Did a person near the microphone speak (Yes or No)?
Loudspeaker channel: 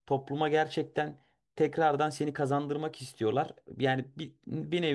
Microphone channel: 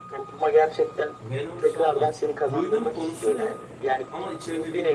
Yes